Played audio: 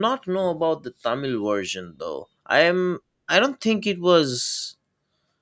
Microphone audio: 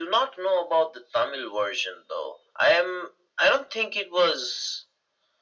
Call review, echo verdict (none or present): present